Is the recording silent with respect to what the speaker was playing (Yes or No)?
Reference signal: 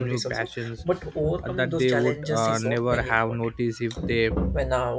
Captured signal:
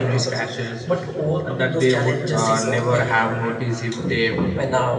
No